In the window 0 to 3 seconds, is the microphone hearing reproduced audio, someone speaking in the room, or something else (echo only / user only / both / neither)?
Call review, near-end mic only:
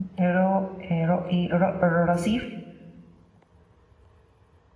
user only